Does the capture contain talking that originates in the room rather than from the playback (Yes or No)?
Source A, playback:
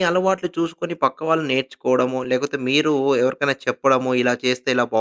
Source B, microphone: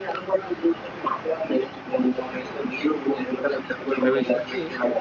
Yes